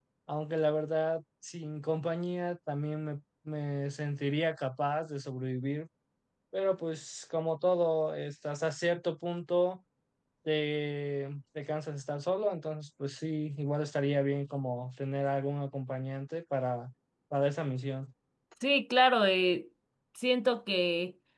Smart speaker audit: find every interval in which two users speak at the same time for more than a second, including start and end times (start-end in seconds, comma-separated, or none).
none